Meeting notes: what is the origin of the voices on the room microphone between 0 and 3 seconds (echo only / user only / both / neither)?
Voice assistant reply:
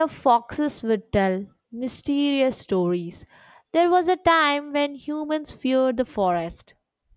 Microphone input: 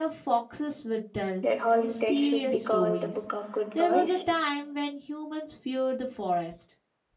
both